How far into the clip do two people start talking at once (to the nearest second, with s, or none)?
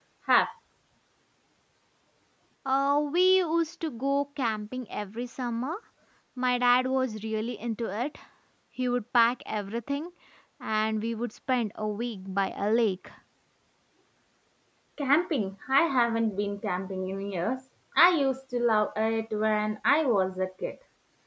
none